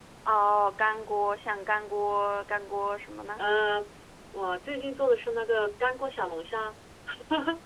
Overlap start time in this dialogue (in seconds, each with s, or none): none